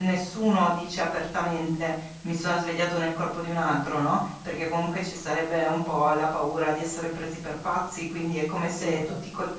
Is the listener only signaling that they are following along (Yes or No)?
Yes